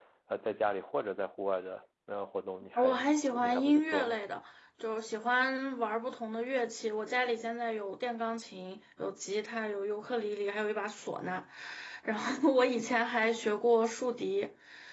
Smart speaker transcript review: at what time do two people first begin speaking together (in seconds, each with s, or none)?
2.8 s